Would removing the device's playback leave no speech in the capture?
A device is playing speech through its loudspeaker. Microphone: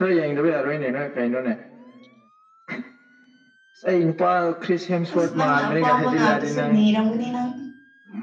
No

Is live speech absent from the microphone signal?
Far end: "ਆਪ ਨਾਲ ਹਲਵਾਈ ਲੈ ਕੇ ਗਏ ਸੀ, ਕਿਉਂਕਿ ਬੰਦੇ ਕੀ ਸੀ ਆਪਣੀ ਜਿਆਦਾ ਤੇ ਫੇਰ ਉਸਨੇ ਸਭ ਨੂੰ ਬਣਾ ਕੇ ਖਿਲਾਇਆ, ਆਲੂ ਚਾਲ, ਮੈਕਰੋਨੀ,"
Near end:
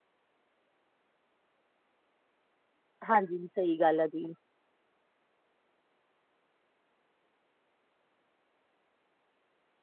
No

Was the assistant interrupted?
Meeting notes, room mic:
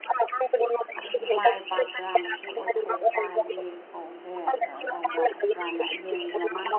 Yes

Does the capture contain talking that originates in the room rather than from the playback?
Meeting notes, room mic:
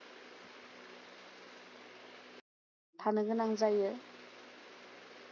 Yes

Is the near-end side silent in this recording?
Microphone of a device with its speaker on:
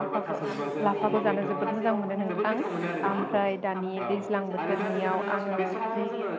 No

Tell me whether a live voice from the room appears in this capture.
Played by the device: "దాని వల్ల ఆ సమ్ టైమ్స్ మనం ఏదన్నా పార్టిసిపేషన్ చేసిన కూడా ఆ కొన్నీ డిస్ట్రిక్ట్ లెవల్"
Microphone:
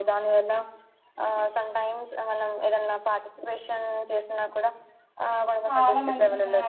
Yes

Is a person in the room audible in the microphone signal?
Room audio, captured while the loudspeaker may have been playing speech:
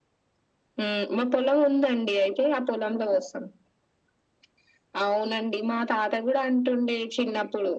No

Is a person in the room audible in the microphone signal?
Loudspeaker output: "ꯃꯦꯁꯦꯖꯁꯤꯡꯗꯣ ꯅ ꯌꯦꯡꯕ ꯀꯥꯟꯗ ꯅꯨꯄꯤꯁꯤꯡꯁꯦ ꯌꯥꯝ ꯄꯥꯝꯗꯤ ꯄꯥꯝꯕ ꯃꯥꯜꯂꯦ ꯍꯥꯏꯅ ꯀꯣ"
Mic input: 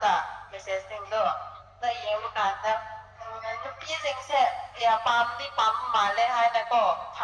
No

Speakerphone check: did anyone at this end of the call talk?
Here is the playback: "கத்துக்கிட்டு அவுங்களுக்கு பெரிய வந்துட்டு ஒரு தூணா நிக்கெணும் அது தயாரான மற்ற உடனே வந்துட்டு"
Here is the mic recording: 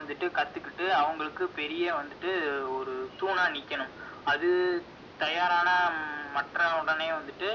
No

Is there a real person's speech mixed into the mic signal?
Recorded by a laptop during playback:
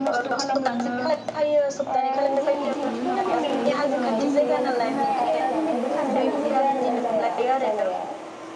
Yes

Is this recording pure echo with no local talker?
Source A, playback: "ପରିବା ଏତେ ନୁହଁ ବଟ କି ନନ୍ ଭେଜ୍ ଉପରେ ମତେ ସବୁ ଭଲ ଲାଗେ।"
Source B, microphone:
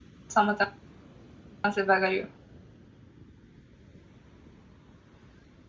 No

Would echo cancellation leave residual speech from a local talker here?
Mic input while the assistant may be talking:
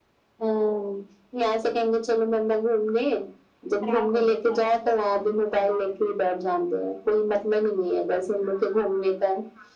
Yes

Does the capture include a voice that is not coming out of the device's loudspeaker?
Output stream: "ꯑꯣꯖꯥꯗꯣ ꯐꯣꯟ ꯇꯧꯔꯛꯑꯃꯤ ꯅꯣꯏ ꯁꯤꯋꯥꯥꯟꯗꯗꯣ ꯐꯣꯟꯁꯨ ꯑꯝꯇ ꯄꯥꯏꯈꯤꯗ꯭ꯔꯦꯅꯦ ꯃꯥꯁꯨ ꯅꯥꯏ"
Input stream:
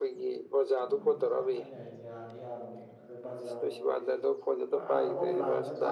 Yes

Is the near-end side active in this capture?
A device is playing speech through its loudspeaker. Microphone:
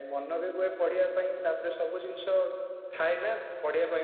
No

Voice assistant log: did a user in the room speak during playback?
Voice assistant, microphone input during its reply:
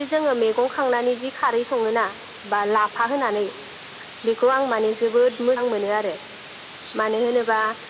No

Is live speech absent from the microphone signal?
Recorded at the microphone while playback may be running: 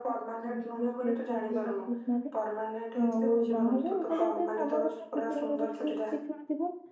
No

